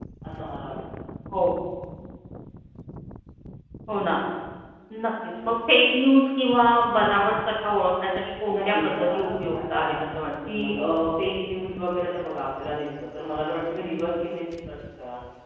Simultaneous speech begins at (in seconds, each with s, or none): 8.5 s